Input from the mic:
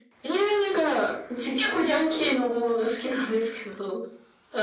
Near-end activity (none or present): none